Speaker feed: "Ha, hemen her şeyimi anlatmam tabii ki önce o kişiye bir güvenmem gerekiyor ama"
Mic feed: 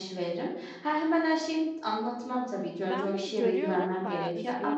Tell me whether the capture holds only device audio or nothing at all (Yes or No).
No